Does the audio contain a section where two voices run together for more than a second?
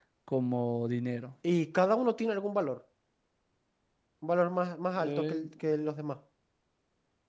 No

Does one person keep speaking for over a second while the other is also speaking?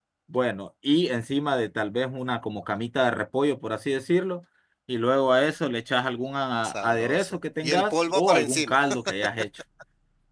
Yes, from 6.6 s

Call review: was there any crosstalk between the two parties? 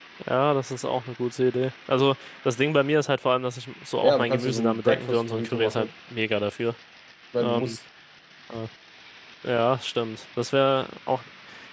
Yes, from 4.0 s

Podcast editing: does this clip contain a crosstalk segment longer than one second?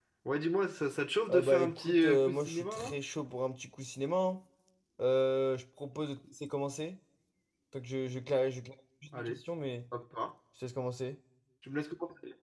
Yes, from 1.3 s

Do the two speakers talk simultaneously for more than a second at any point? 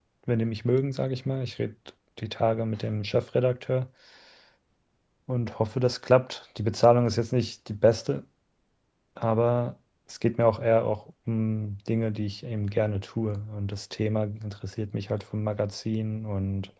No

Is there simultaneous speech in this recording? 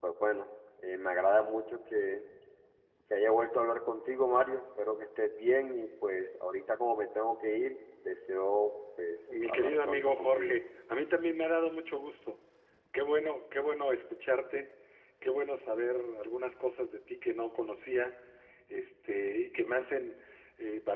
Yes, from 9.3 s

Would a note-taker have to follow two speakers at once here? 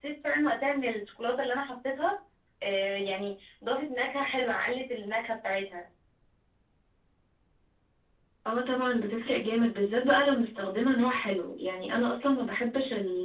No

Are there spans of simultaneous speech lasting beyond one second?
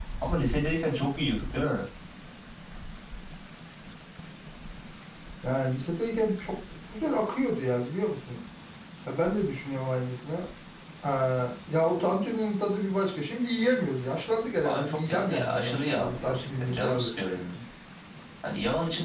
Yes, from 14.6 s

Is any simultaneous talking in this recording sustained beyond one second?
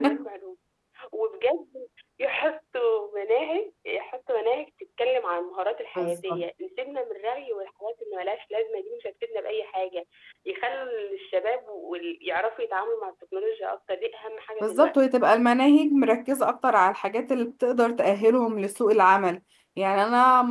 No

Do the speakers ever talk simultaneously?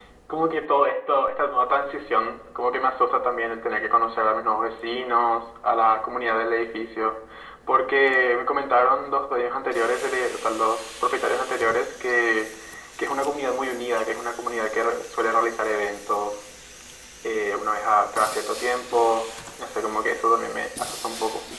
No

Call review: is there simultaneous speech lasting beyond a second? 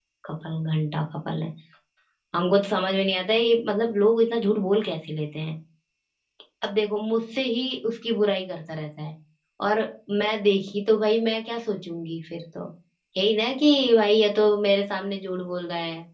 No

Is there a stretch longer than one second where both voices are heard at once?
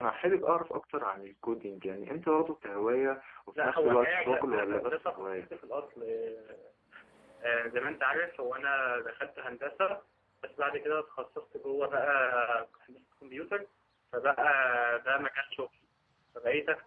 Yes, from 3.5 s

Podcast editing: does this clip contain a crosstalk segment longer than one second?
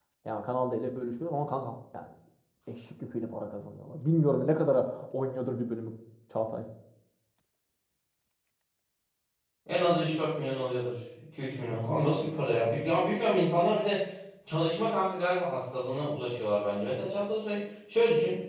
No

